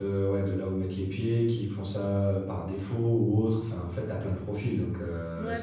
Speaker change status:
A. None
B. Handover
B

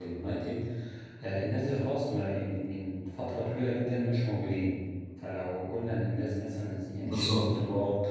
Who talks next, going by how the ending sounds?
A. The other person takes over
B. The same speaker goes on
B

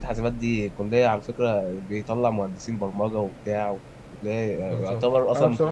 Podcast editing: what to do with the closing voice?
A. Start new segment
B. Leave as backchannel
A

